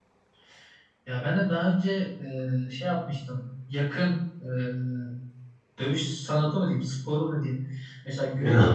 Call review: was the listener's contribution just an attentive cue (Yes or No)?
Yes